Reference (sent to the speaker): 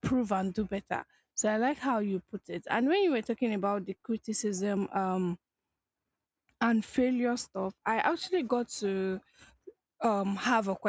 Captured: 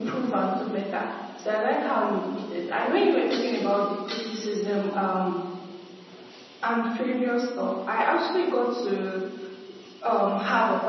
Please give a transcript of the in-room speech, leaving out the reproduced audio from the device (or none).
none